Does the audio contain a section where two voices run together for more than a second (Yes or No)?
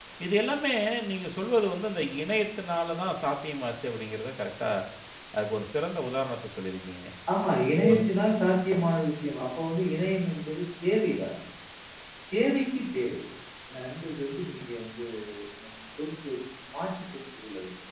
No